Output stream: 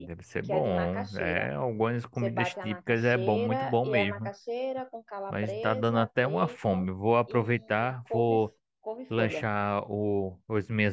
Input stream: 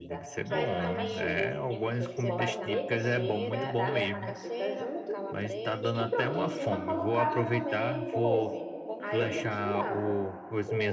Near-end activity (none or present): present